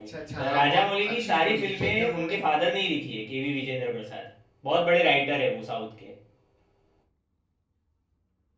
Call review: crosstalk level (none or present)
present